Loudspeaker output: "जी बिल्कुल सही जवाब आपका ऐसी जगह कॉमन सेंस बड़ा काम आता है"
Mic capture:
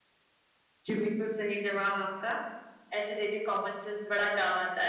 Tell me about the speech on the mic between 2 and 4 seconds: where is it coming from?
echo only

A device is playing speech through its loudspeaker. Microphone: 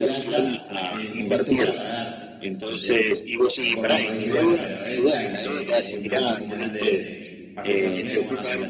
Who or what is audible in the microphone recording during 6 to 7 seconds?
both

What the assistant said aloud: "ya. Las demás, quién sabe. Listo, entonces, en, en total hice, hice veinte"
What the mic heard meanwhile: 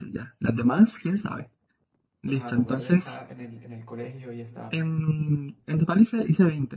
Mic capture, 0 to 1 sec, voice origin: echo only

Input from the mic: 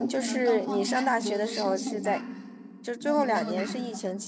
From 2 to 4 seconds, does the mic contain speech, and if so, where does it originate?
both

